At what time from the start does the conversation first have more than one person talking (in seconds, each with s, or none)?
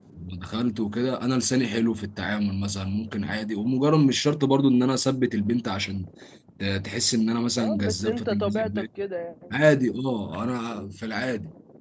7.6 s